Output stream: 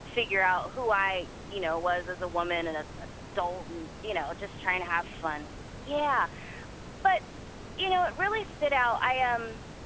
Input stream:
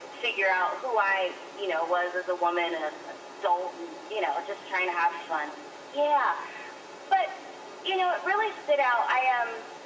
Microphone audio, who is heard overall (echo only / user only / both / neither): echo only